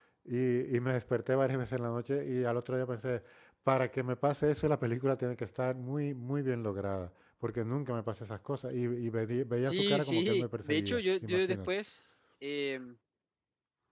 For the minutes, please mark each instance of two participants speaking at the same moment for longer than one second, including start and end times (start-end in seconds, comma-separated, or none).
9.5-11.7